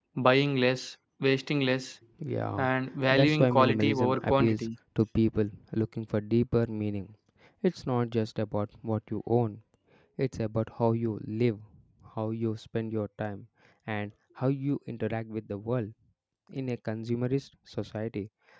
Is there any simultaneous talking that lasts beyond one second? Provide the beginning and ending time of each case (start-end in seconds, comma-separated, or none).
3.1-4.7